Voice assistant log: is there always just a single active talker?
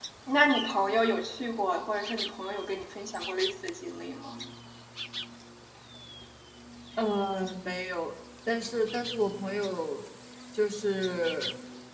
Yes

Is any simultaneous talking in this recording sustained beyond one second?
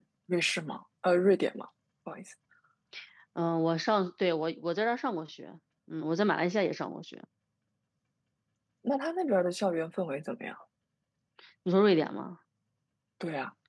No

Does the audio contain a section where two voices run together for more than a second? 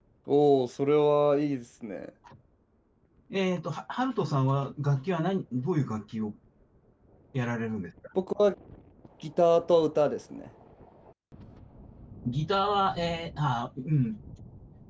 No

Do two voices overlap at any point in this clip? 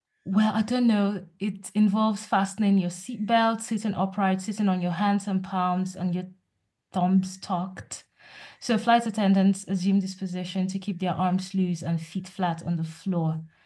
No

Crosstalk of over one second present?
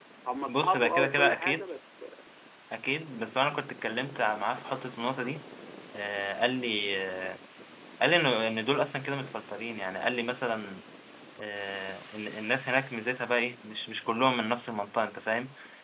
Yes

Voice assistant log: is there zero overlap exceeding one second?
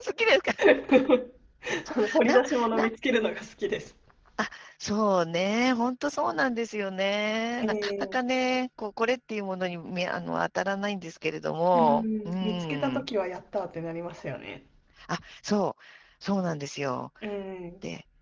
No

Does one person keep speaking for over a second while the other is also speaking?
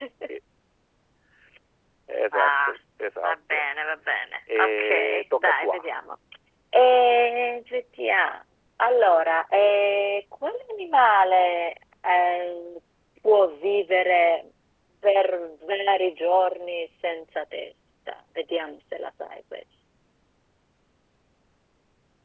Yes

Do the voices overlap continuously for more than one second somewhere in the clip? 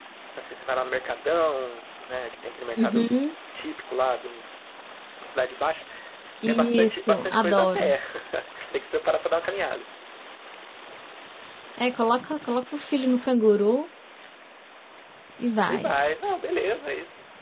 Yes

